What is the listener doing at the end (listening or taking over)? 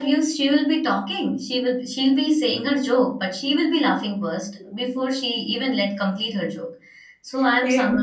listening